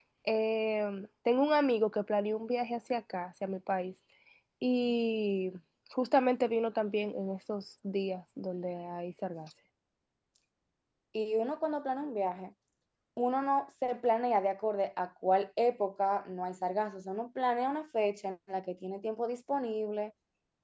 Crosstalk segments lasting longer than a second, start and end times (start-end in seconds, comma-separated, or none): none